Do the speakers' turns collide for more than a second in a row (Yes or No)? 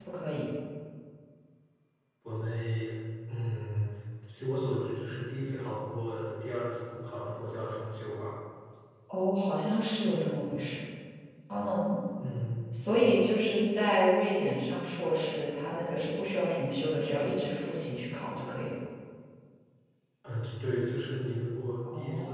No